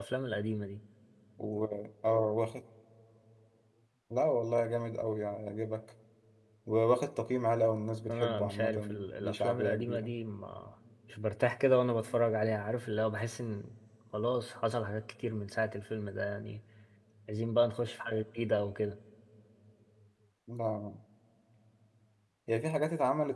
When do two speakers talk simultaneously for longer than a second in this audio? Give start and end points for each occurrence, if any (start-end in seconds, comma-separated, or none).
8.1-10.1